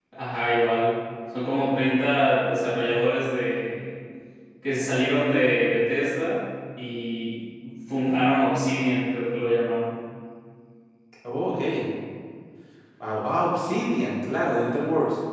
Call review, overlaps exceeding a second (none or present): none